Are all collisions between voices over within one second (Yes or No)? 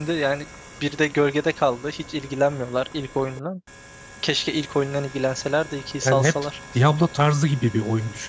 Yes